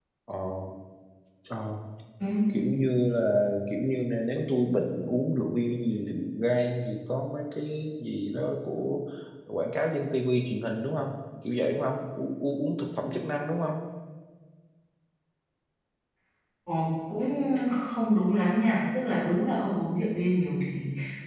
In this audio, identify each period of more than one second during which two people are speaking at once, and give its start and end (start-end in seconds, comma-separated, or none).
none